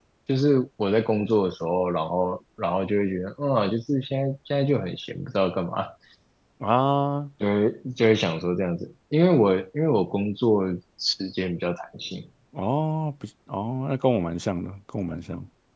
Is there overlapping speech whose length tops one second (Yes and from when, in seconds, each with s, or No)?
No